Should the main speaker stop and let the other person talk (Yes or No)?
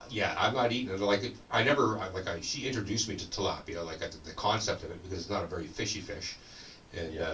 No